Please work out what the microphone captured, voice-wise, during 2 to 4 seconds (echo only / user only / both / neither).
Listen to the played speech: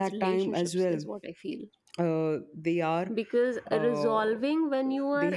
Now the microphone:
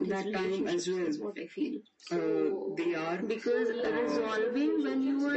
both